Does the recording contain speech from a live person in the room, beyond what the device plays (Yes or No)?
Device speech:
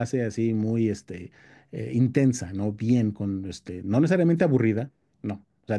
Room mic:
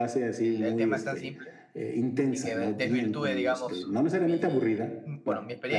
Yes